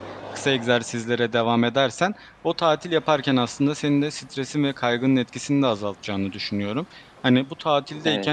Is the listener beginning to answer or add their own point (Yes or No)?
No